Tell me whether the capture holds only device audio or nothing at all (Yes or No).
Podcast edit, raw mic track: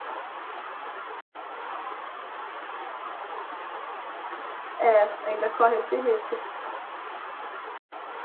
No